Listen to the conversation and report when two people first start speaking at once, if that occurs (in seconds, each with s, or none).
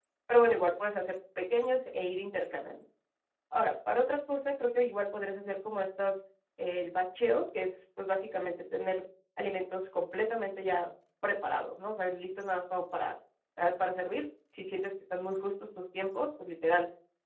none